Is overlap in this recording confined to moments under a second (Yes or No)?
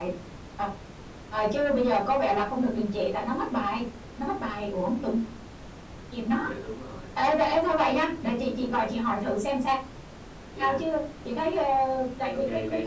Yes